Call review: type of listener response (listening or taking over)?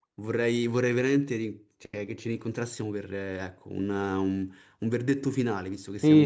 taking over